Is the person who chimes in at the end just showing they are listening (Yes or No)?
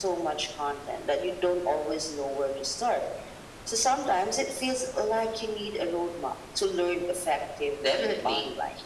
No